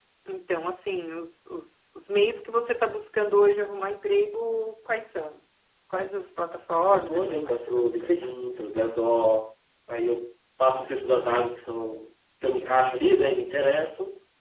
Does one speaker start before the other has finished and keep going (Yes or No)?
Yes